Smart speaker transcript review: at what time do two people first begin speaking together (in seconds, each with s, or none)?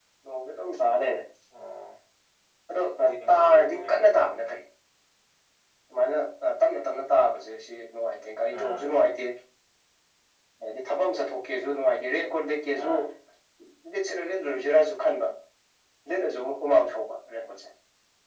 3.3 s